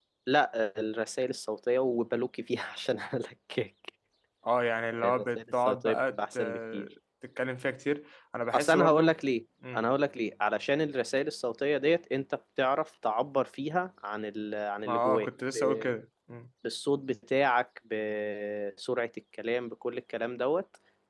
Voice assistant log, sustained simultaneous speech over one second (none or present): present